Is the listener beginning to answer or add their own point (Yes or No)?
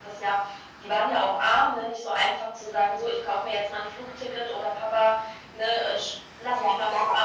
Yes